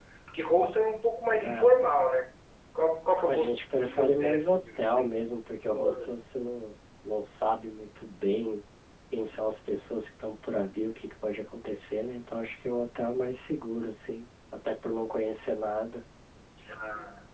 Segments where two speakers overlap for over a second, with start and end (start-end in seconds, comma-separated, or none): 3.3-5.0